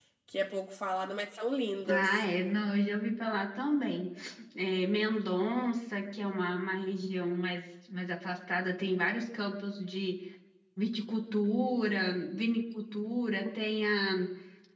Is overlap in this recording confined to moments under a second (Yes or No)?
Yes